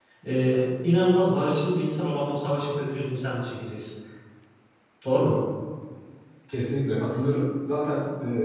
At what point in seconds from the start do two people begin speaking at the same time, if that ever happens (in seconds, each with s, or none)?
none